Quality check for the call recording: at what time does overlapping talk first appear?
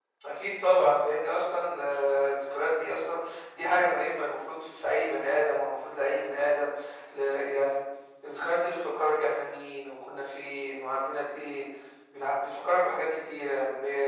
none

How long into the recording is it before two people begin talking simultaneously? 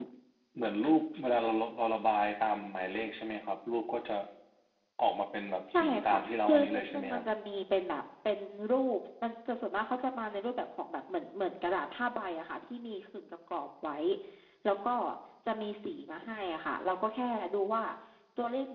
5.8 s

